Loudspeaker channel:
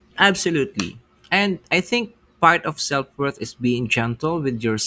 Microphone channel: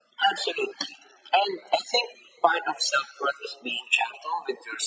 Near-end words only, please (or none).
none